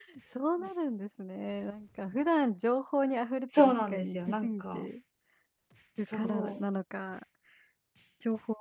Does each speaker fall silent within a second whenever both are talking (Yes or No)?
No